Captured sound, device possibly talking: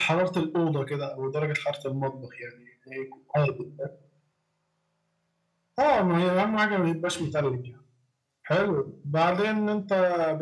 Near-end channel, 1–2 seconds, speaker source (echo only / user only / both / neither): echo only